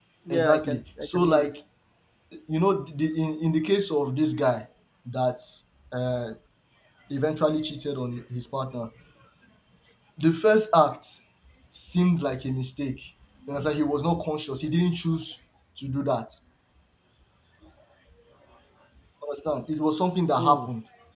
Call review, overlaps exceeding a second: present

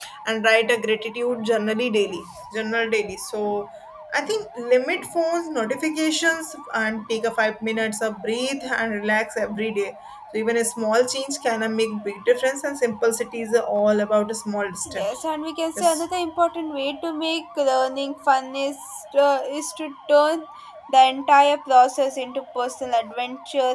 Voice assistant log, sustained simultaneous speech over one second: none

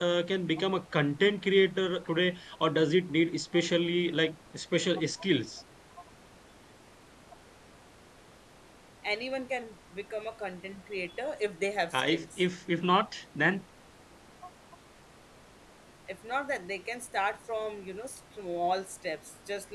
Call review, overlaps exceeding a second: none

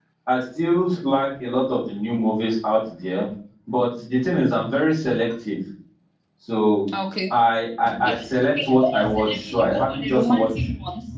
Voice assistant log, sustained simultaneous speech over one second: present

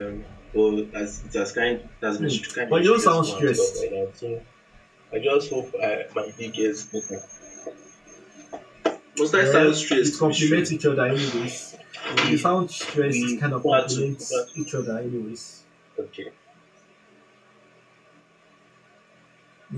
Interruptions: present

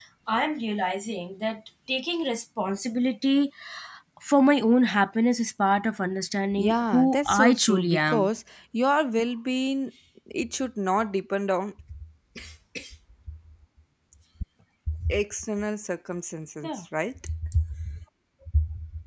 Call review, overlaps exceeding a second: present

